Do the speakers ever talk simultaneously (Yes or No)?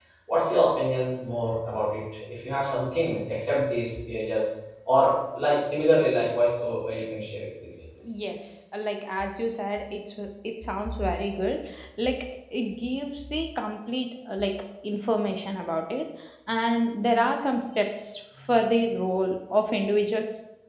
No